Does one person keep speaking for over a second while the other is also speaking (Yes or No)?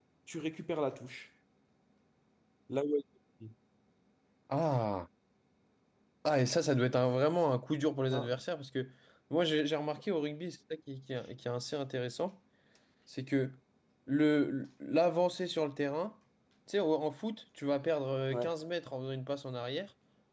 No